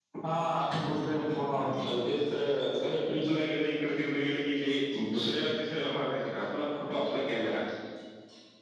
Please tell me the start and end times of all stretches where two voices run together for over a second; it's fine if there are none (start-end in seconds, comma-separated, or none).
none